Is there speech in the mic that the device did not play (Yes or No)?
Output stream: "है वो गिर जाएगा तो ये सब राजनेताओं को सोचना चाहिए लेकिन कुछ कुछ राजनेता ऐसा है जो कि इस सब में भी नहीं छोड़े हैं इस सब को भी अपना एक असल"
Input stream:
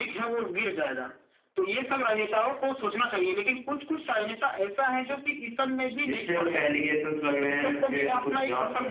Yes